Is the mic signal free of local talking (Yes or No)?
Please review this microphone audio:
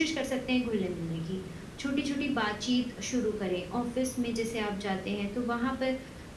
Yes